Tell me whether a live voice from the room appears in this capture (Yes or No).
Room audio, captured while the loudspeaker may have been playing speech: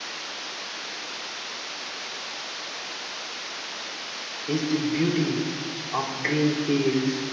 Yes